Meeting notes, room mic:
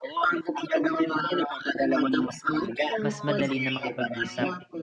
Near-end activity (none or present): present